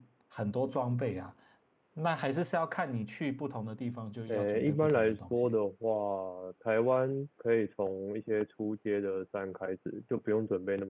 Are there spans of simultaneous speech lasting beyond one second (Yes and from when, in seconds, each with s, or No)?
Yes, from 4.3 s